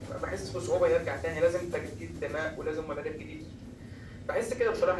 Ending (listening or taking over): listening